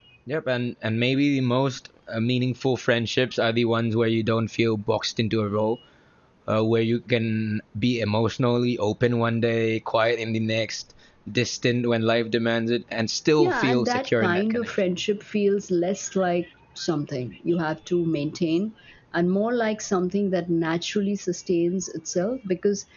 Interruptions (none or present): present